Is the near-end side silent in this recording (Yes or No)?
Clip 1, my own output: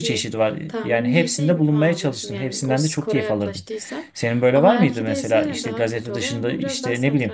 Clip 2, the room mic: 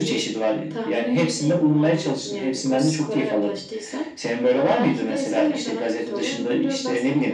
Yes